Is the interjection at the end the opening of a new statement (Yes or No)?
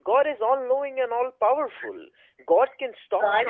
Yes